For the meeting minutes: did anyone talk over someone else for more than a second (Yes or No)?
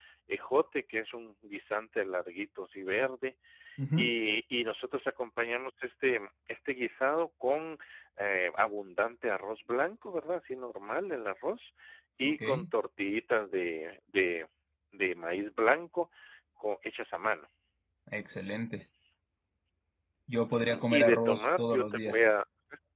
Yes